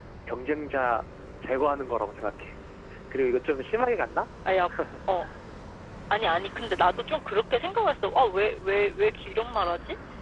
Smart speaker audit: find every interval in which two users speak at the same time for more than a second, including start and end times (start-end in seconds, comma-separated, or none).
none